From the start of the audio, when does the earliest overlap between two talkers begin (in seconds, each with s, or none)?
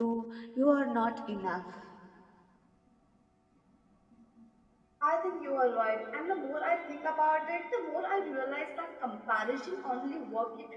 none